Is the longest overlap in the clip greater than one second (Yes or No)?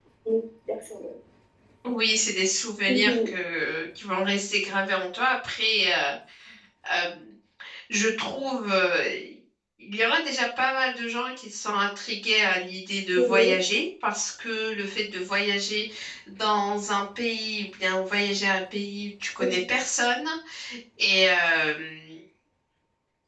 No